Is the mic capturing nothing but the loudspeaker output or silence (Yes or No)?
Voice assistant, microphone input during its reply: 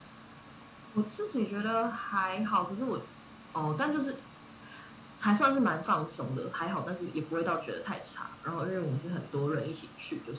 Yes